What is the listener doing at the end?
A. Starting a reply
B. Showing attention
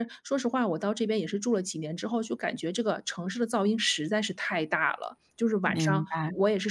B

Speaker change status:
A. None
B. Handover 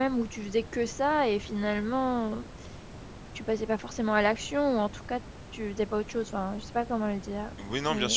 B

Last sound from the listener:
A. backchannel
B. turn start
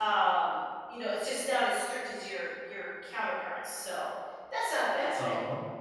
B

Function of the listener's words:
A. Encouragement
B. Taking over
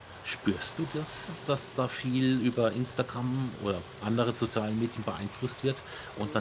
A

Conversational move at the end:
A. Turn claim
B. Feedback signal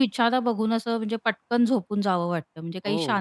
B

